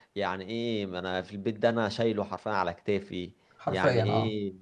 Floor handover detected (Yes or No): No